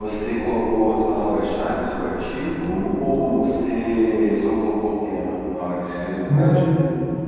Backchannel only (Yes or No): No